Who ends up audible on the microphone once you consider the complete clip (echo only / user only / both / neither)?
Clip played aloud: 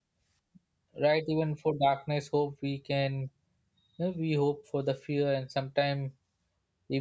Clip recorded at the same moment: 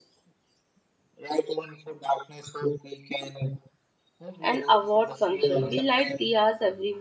both